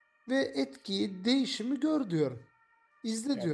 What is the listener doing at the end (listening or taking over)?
taking over